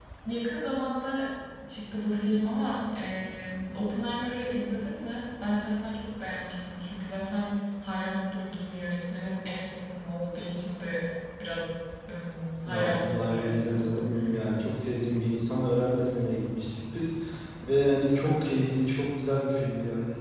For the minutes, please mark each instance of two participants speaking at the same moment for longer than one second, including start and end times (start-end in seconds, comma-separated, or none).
12.7-14.0